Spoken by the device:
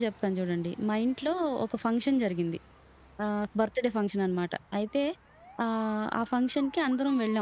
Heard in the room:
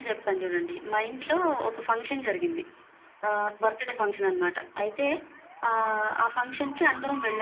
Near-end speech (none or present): none